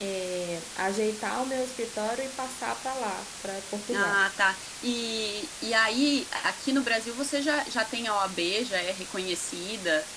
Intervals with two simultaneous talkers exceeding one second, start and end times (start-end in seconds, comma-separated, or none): none